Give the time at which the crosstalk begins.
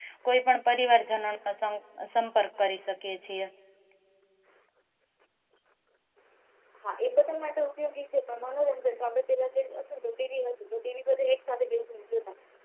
none

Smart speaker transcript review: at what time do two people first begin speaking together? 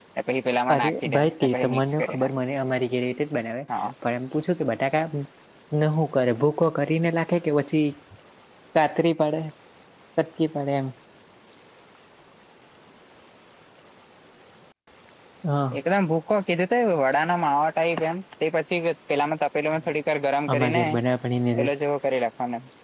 0.7 s

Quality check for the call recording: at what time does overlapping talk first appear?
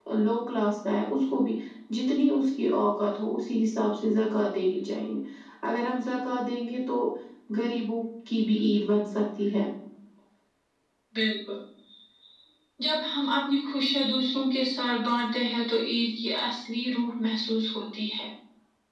none

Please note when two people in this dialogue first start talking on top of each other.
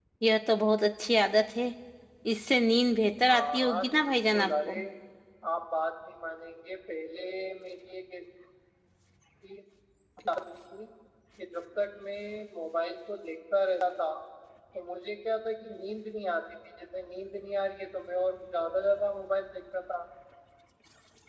3.3 s

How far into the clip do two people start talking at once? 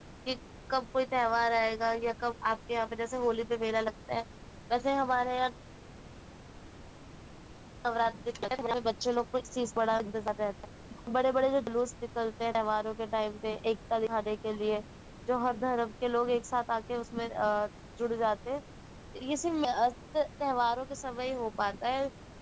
none

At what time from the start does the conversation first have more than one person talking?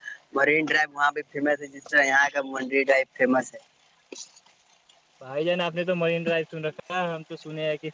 none

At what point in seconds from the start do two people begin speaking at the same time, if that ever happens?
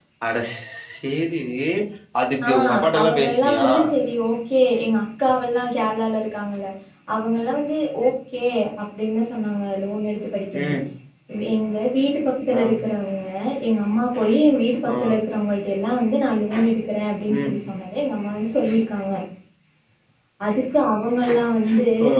2.4 s

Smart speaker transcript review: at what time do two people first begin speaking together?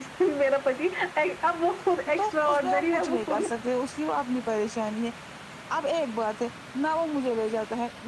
2.2 s

